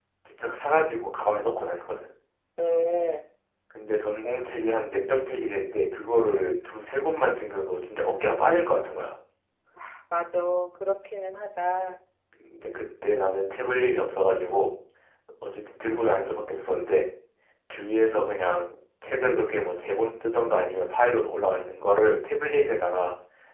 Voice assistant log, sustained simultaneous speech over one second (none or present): none